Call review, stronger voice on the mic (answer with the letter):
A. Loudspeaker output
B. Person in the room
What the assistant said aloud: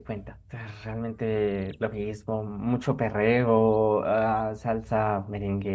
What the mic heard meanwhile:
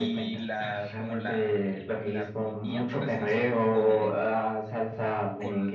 A